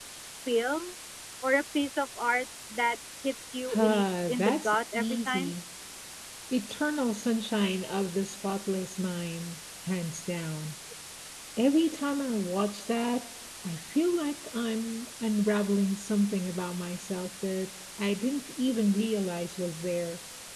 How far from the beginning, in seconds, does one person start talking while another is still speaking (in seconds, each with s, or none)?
3.7 s